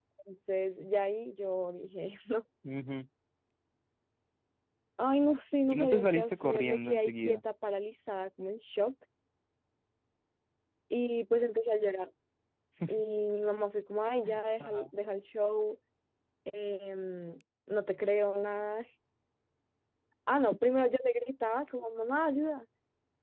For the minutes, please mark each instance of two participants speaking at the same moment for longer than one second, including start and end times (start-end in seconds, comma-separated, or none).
5.7-7.4